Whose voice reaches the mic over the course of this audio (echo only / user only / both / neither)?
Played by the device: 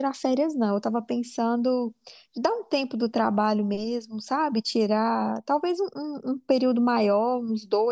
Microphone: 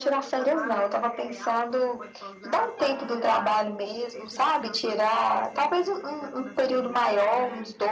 both